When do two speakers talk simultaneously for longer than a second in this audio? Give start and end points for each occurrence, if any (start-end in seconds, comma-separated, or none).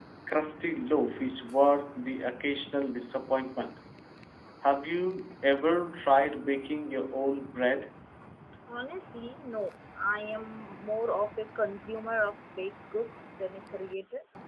none